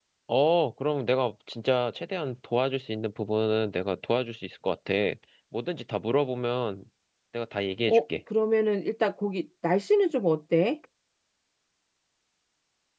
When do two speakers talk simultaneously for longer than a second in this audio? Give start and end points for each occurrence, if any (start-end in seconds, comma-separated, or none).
none